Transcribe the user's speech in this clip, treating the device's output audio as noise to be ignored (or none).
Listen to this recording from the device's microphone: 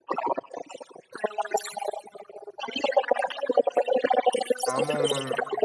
ஆமா ஆமாங்க